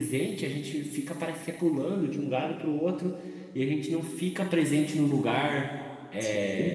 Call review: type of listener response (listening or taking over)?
listening